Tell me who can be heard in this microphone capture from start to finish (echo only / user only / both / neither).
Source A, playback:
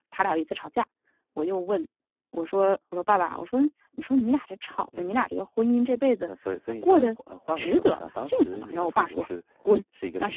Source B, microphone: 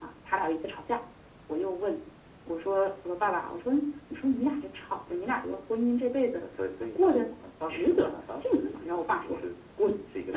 echo only